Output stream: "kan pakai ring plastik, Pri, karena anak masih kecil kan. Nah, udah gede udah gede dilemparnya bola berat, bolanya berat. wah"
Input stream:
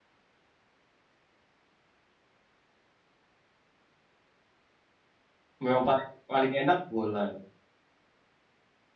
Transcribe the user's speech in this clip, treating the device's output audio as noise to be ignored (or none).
memang paling paling enak bola ya.